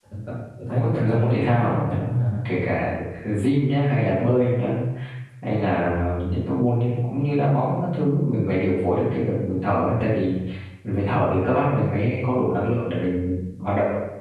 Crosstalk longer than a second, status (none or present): present